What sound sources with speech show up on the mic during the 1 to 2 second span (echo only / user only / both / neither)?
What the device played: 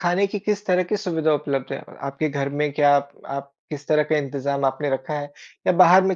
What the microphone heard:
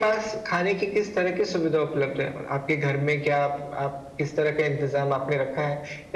echo only